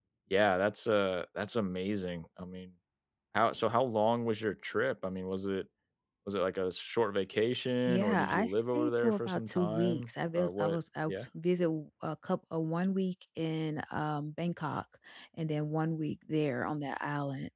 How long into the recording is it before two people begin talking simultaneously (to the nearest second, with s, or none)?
8 s